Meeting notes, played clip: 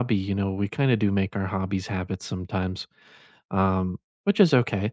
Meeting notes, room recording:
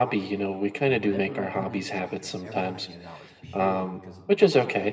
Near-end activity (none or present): present